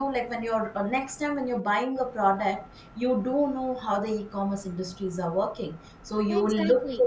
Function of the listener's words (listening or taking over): listening